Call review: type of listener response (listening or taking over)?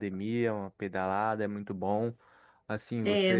listening